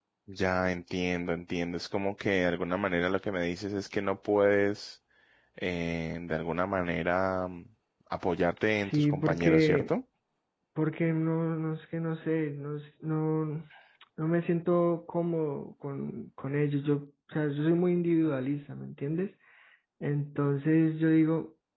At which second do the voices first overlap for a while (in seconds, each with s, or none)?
8.7 s